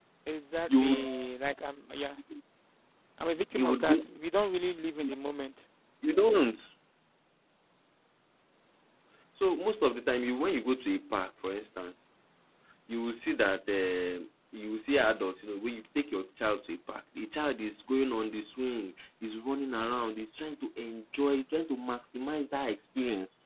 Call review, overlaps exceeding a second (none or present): none